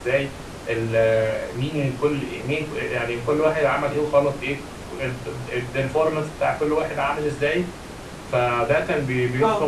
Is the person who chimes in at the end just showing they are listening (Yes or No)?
Yes